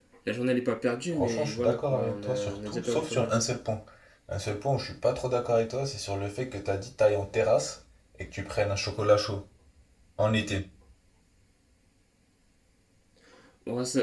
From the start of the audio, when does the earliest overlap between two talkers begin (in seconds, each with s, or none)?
1.1 s